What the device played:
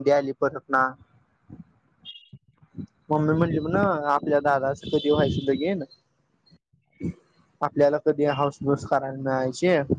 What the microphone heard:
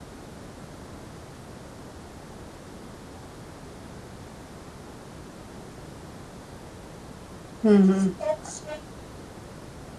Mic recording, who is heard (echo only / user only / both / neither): user only